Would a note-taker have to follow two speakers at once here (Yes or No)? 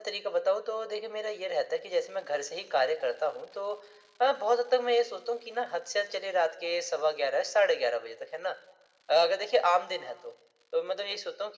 No